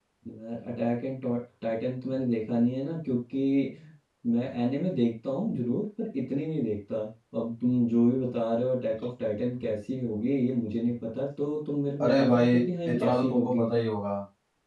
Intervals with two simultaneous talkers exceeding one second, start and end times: 12.0-13.7

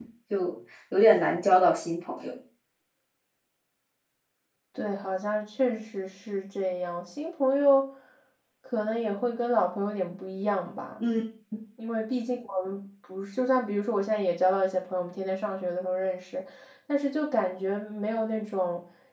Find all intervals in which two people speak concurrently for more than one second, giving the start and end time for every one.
none

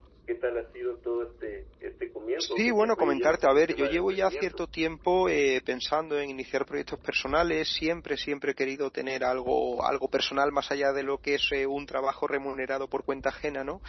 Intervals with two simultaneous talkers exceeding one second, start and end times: 2.5-4.6

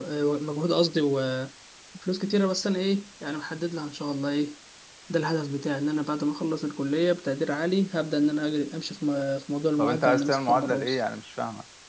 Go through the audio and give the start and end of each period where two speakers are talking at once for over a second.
9.8-11.0

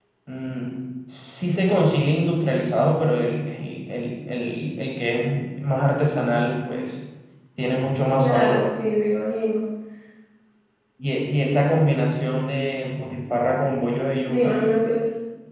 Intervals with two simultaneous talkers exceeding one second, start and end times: none

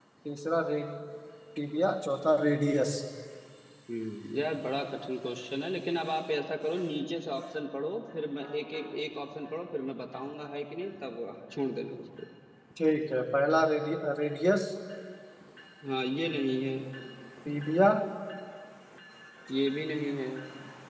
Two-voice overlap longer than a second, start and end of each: none

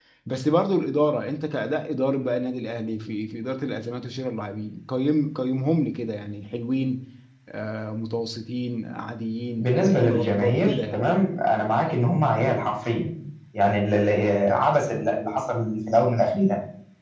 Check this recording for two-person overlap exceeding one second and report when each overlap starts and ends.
9.6-11.0

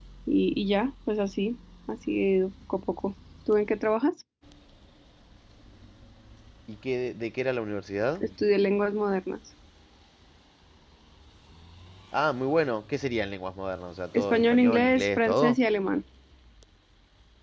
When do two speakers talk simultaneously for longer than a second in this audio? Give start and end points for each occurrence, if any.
14.1-15.6

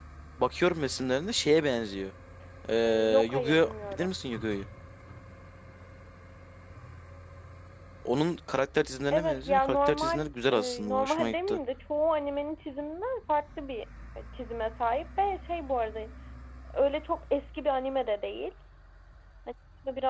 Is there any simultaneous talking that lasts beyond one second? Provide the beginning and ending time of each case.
2.9-4.1, 9.1-11.6

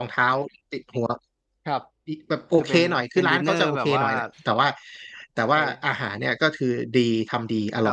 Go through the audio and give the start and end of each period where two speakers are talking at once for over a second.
2.5-4.0

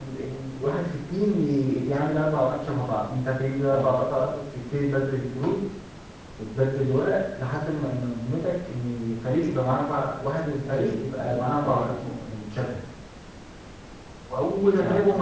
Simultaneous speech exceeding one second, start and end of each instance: 10.7-11.9

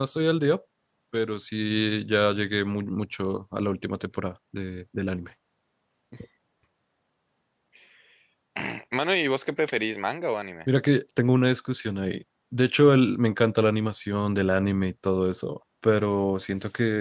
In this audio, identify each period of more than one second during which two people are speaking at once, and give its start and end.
none

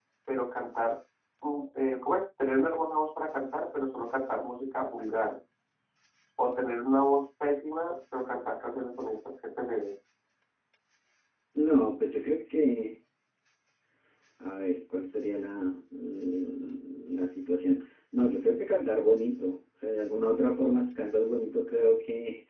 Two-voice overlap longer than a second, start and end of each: none

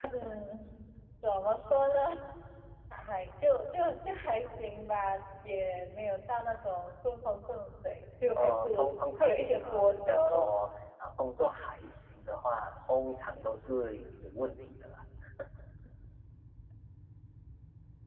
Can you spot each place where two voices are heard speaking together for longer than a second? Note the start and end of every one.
9.1-10.5

